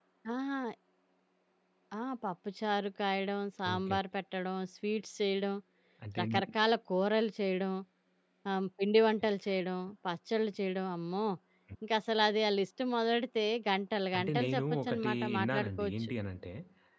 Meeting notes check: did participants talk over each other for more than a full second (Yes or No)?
Yes